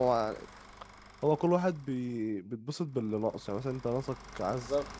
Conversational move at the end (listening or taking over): listening